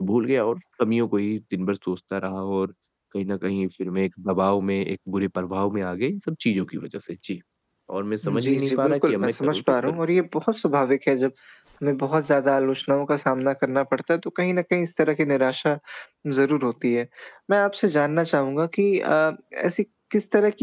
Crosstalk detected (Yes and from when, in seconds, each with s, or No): Yes, from 8.2 s